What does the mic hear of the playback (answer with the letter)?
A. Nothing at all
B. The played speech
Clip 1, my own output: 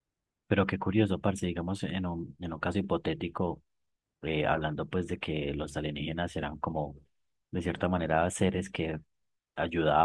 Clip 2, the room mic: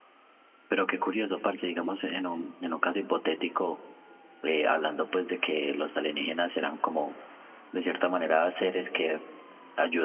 B